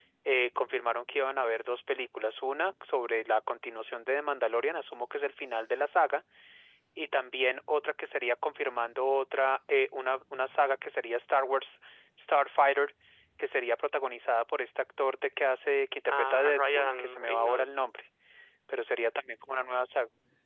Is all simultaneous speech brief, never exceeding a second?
No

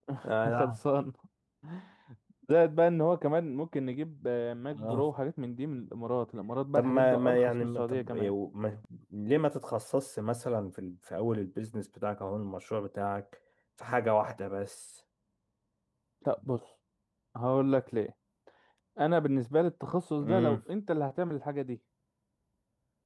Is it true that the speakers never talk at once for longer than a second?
No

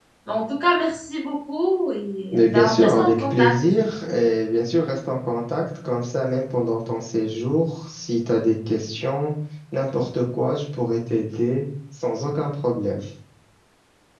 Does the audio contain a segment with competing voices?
Yes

